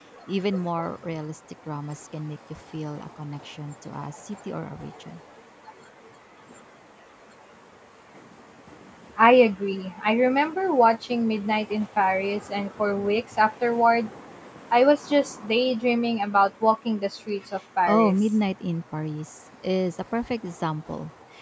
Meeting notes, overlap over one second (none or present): none